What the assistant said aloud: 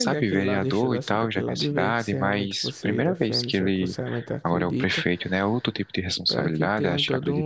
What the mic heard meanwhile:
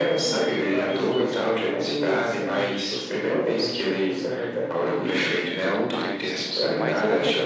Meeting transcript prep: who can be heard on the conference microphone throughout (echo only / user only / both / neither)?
both